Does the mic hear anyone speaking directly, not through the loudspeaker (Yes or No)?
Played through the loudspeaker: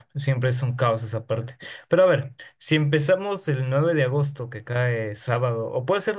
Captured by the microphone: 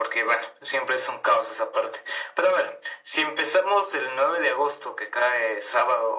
No